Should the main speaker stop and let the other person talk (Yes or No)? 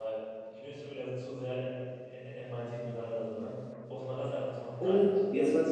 Yes